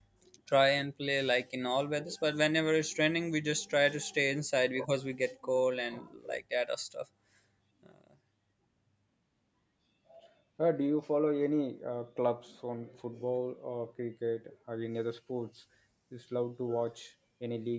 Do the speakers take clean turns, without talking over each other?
Yes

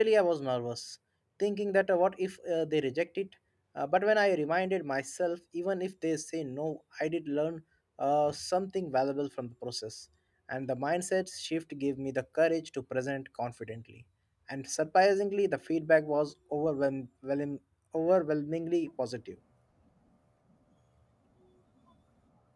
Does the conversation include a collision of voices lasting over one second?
No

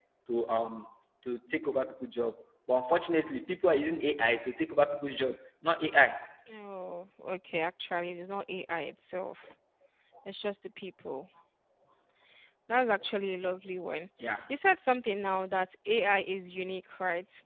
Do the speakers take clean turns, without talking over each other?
Yes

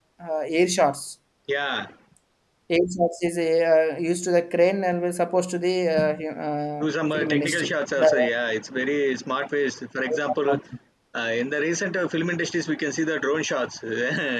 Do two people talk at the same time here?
Yes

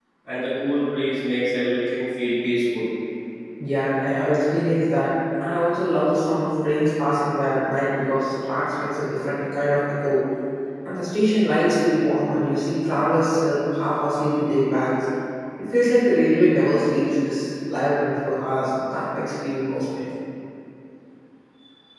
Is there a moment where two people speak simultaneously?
No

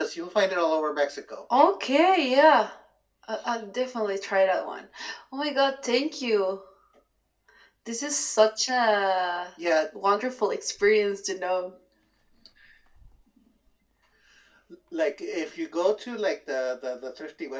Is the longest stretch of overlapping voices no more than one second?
Yes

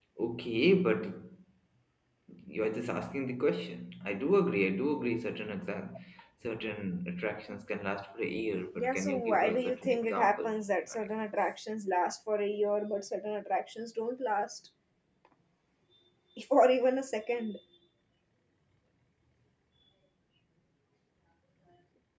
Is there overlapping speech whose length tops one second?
Yes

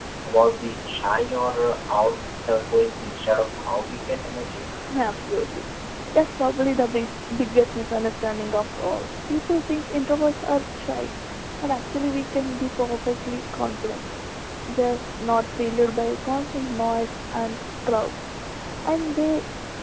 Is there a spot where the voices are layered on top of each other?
No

